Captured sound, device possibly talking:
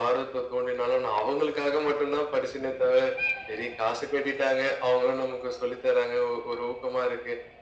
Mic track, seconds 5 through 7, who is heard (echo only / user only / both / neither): echo only